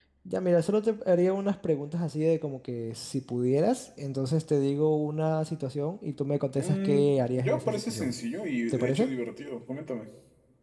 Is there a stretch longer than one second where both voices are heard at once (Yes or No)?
Yes